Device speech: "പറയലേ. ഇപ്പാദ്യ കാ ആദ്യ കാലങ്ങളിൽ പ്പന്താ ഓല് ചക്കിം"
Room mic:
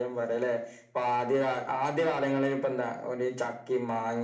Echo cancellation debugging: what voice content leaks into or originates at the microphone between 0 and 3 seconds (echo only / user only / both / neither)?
echo only